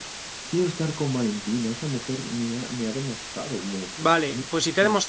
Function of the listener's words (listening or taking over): taking over